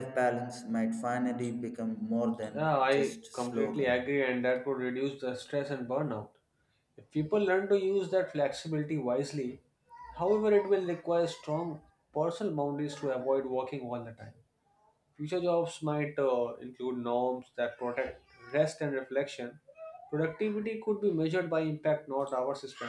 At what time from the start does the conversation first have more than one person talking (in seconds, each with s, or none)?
2.4 s